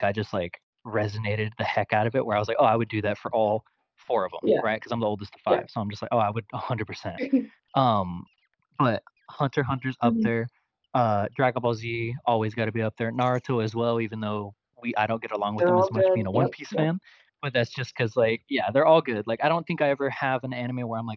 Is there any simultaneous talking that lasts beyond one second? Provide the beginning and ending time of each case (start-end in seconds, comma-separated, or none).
15.6-16.9